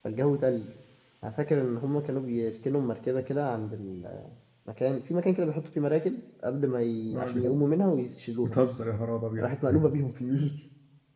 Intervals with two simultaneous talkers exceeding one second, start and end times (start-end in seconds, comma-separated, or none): none